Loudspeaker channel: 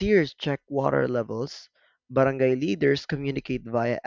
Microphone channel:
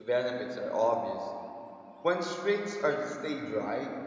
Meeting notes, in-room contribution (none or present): present